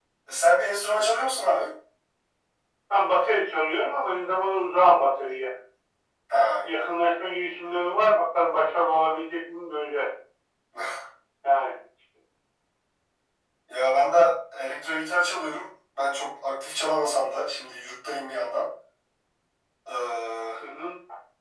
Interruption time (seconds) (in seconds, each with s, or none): none